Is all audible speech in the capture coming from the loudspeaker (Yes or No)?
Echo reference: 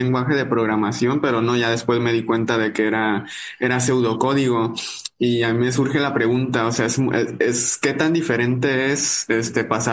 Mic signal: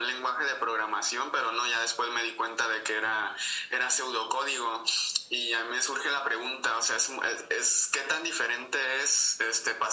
Yes